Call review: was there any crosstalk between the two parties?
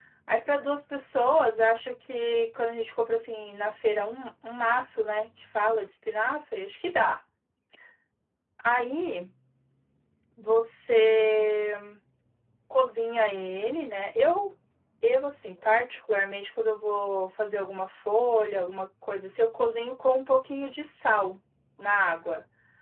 No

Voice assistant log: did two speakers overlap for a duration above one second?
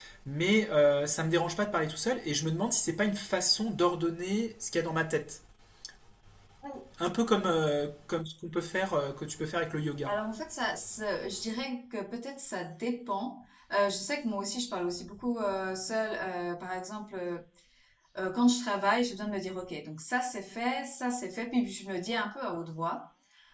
No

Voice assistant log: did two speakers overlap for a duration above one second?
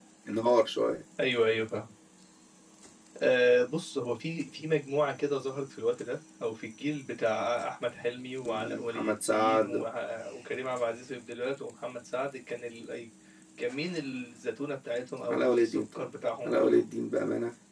Yes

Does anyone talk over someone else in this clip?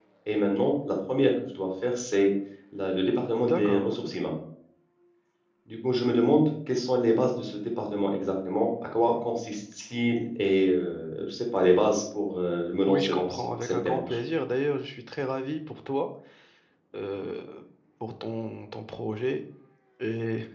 Yes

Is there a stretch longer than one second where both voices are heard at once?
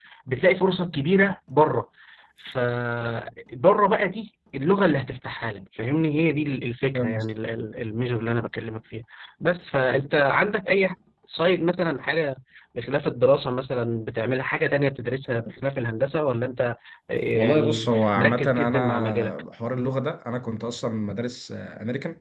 Yes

